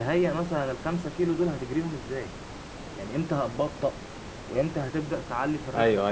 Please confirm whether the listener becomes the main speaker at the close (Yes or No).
Yes